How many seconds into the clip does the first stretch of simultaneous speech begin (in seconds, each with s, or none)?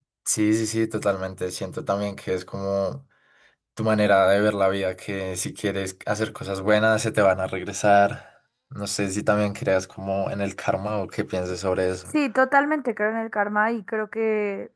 none